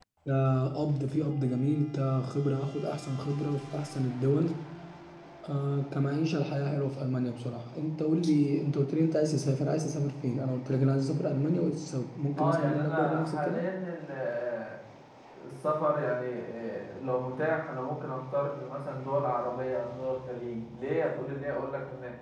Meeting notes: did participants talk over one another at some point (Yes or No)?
Yes